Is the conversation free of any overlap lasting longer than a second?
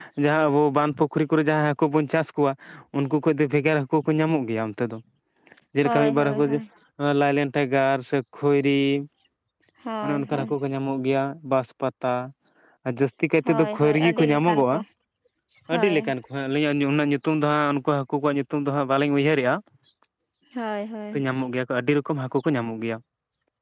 No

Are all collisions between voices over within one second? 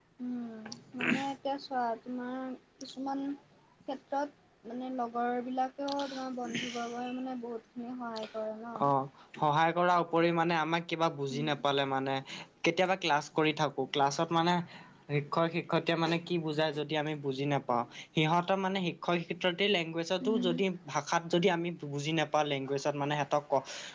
Yes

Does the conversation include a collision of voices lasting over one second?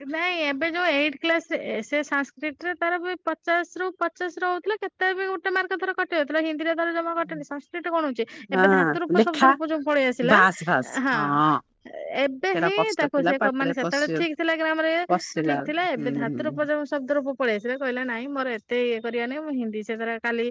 Yes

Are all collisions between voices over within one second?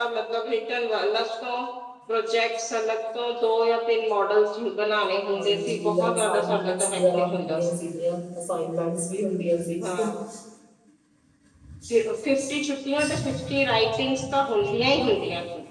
No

